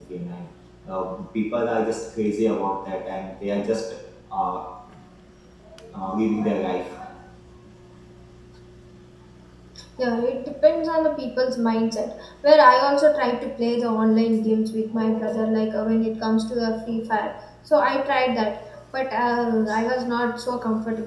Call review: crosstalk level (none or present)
none